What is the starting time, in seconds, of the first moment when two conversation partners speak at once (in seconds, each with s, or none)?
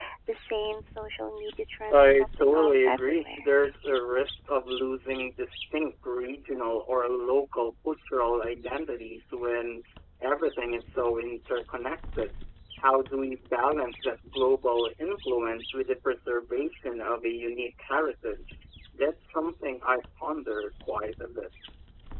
1.9 s